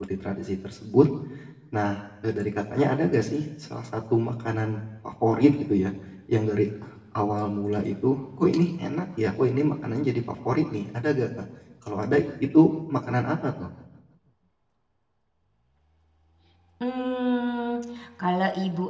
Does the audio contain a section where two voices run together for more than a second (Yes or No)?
No